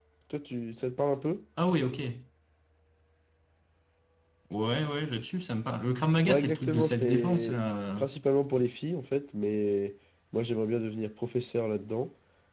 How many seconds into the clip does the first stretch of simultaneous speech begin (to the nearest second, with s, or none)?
6 s